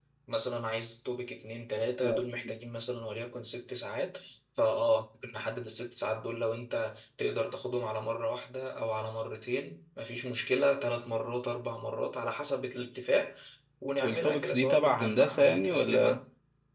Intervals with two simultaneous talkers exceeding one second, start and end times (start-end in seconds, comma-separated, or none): 14.0-16.2